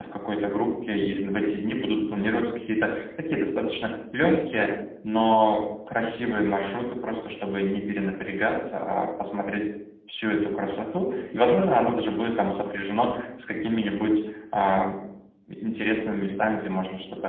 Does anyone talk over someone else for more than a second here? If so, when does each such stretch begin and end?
none

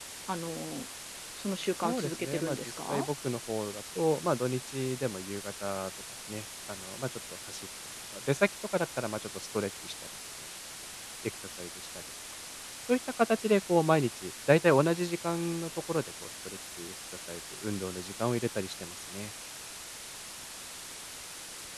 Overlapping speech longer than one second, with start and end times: 1.8-3.1

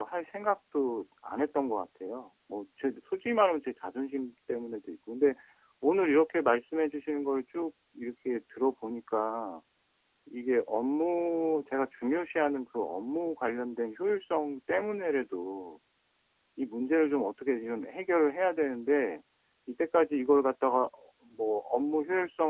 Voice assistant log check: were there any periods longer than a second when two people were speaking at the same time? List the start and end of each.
none

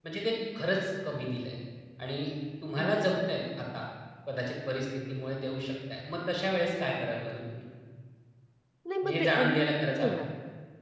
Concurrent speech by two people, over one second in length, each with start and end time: 9.0-10.3

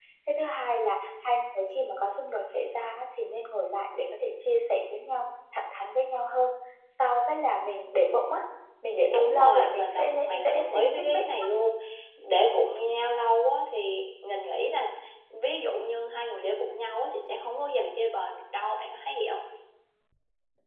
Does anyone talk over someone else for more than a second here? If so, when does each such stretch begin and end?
9.1-11.2

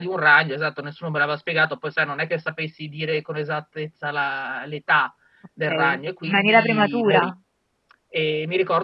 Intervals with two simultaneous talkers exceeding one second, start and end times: 5.7-7.3

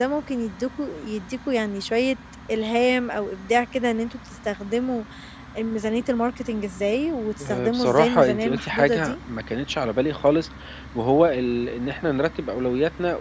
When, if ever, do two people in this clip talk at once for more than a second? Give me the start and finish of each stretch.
7.5-9.1

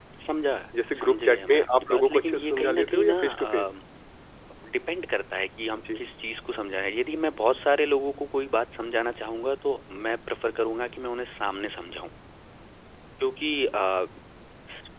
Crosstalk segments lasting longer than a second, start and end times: 1.0-3.6

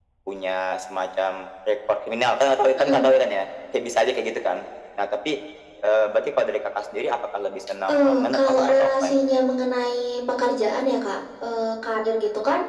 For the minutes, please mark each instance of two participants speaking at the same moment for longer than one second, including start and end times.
7.9-9.2

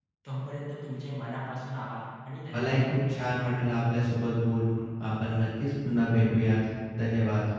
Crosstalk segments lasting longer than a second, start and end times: none

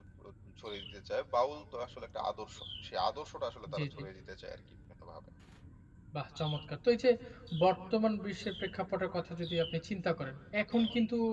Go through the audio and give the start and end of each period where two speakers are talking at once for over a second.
none

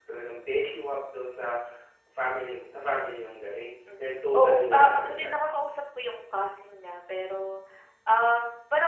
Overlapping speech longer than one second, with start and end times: 4.0-5.3

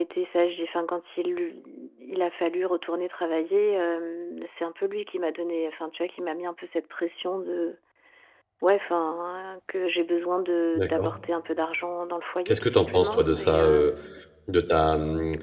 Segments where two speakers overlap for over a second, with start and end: 12.4-13.9

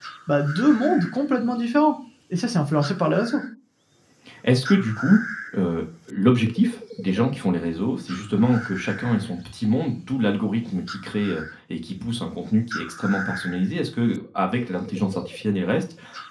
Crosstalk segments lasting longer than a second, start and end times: none

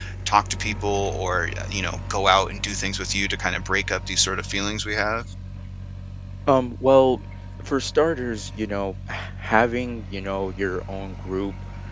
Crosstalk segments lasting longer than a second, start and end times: none

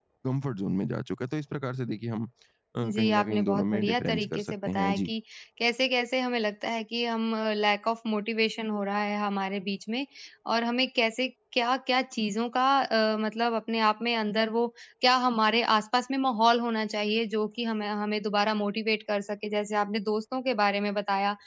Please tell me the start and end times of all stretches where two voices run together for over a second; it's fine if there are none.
2.8-5.1

